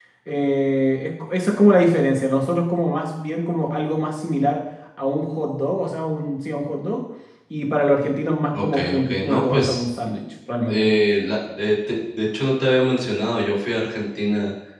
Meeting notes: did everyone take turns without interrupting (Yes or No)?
No